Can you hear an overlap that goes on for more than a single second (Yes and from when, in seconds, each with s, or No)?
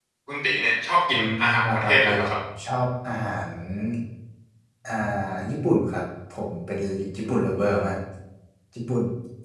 Yes, from 1.1 s